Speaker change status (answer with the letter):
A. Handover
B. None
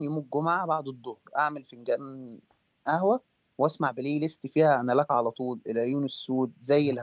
B